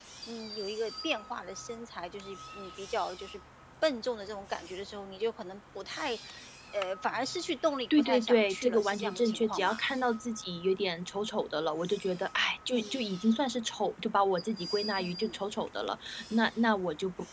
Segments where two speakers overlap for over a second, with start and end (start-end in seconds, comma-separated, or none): 8.0-9.8